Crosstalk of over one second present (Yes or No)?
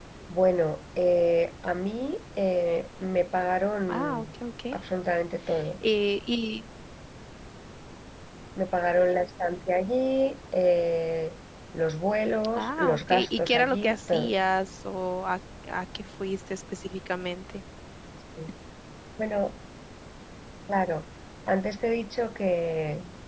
Yes